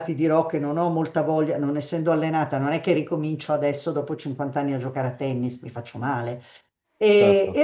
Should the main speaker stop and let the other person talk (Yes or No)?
No